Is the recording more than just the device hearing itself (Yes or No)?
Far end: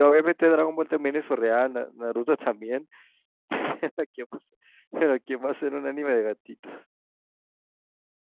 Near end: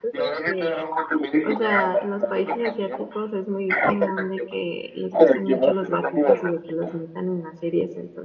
Yes